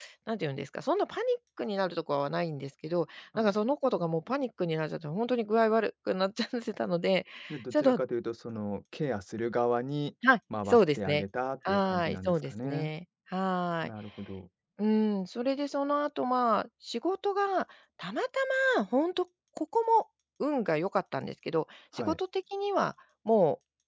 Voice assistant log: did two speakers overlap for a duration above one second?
Yes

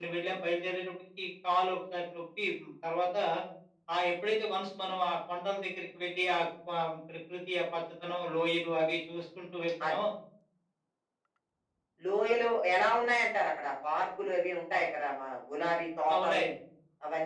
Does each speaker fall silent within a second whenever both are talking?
Yes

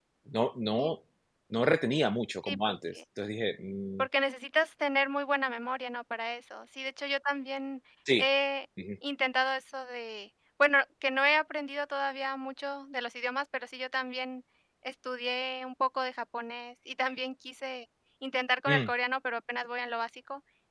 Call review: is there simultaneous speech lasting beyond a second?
No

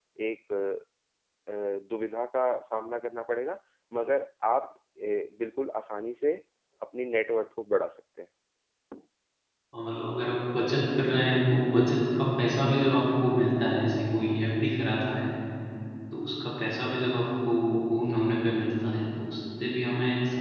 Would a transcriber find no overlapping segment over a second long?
Yes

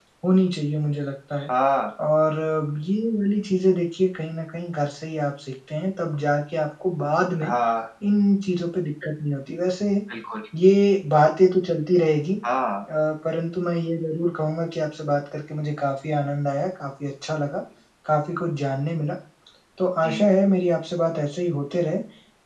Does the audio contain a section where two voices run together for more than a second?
No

